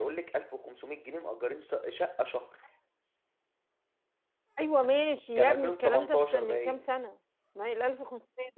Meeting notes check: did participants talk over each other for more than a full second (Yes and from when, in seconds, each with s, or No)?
Yes, from 5.4 s